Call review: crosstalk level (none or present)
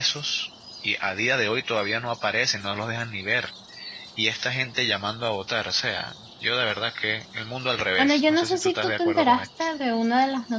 present